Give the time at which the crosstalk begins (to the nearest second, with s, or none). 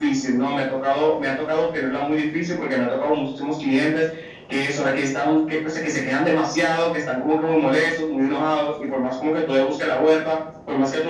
none